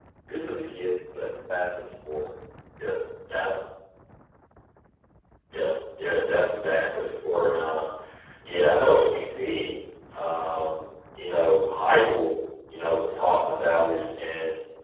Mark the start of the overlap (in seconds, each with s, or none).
none